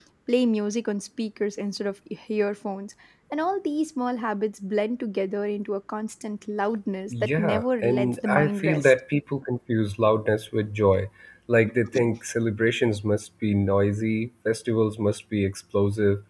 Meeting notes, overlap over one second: present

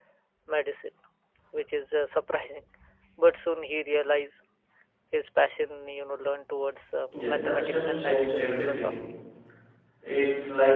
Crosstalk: present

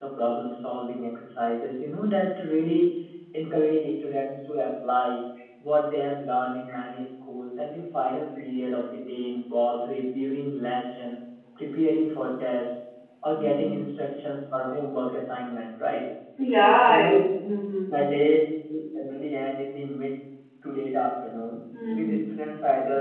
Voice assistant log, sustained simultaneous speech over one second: none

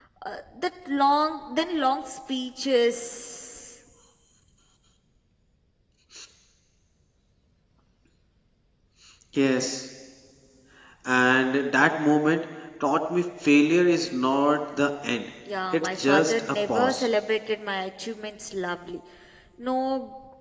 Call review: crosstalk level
present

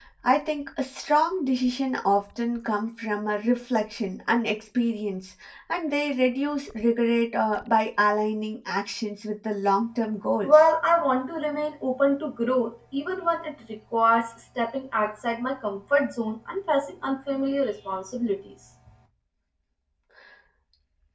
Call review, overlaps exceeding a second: none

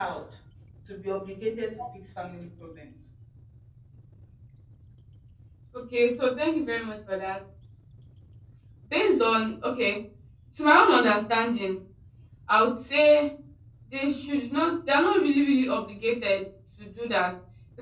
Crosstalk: none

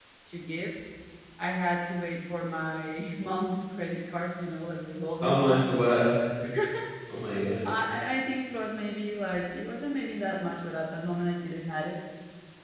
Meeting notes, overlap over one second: none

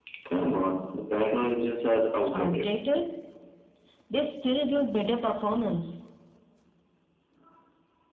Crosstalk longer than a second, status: none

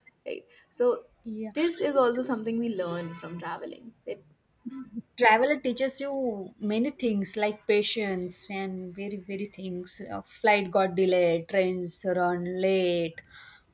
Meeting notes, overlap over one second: none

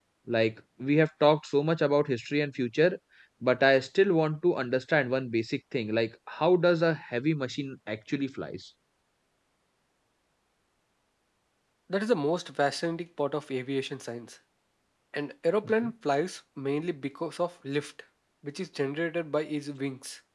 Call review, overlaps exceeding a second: none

